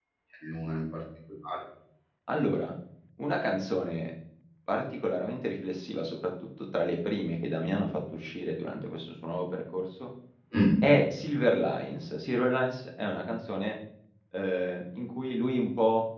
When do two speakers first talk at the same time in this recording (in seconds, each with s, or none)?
none